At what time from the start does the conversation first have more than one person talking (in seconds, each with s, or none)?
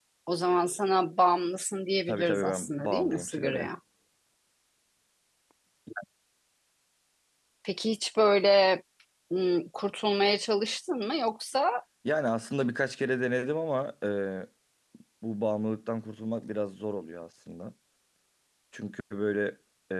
2.1 s